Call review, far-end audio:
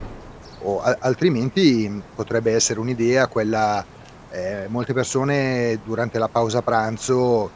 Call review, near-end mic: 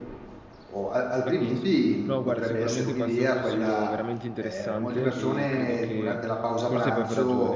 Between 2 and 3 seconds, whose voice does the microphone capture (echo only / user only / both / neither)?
both